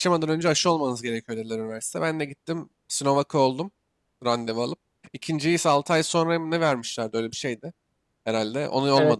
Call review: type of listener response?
taking over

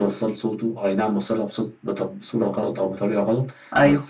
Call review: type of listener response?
listening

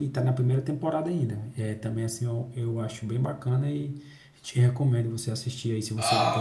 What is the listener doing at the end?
taking over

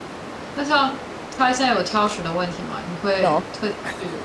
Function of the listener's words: listening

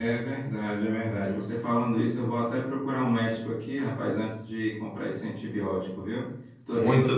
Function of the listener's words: listening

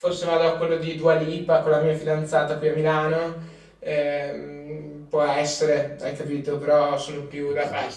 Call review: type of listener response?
listening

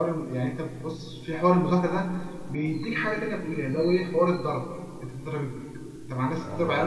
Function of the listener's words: taking over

